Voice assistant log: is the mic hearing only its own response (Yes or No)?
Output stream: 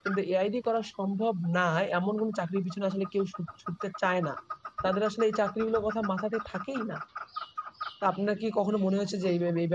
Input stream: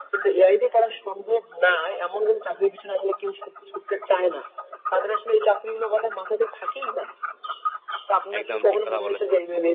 No